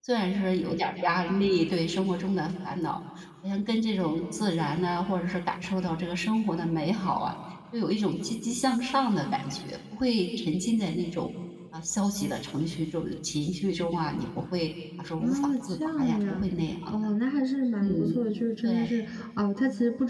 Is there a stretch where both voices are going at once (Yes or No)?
Yes